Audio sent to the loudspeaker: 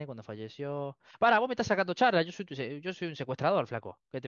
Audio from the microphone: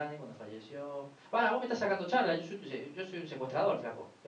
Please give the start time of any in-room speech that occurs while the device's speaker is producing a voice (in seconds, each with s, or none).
none